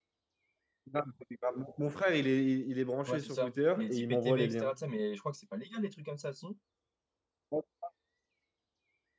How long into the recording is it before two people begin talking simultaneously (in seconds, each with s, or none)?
3.1 s